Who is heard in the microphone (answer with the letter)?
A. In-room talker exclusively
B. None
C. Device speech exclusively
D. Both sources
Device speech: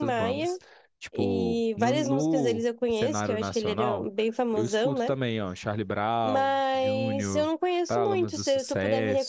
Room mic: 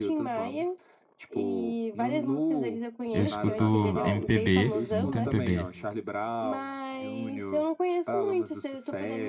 D